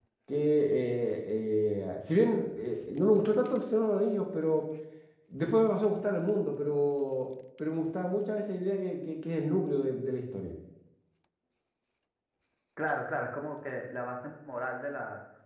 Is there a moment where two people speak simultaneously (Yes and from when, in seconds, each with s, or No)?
No